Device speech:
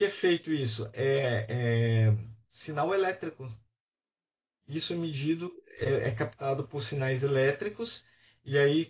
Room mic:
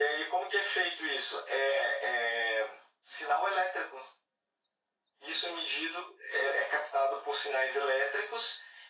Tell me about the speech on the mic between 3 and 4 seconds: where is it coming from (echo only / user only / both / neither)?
echo only